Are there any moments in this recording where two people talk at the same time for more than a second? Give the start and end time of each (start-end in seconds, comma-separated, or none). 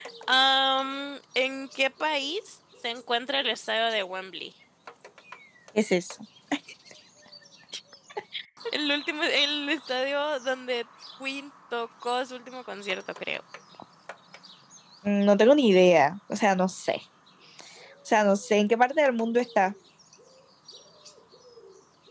none